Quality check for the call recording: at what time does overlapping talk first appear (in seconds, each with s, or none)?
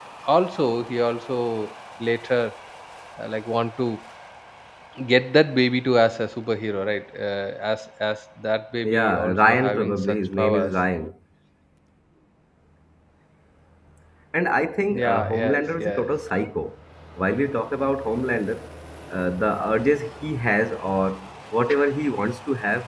8.8 s